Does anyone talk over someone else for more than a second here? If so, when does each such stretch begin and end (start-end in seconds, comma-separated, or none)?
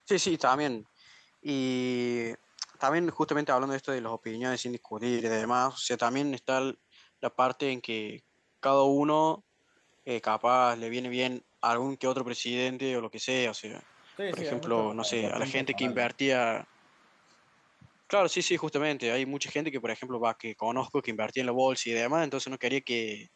14.3-16.1